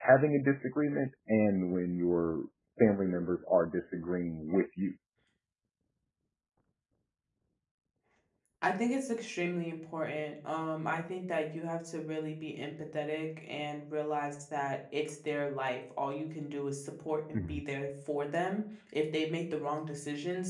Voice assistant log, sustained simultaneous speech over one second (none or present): none